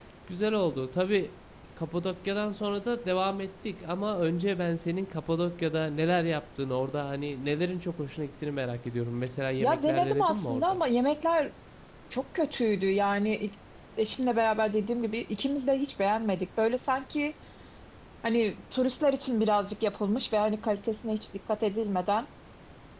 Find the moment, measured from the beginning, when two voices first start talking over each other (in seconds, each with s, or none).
9.6 s